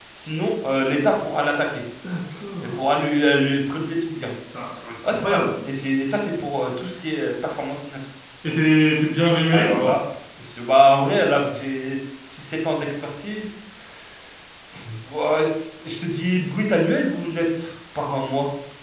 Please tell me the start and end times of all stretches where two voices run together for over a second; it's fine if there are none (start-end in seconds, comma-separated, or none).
none